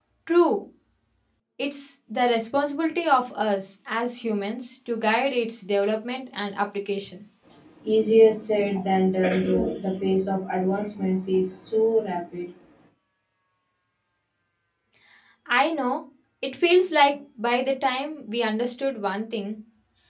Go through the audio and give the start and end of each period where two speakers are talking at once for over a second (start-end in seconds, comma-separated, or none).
none